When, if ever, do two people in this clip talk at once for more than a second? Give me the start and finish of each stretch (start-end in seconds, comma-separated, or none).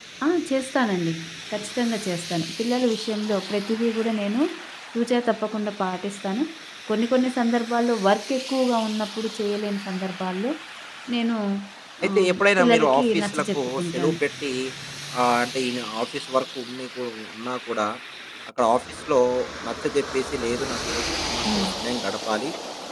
12.1-14.2